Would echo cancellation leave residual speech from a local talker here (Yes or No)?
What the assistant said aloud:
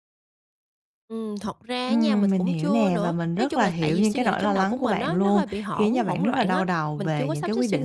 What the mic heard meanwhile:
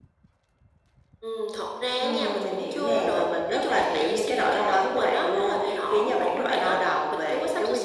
No